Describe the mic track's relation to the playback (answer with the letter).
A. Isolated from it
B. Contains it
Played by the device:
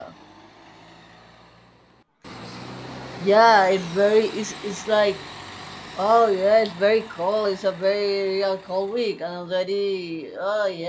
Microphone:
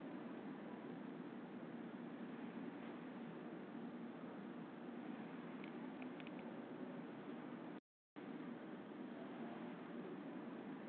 A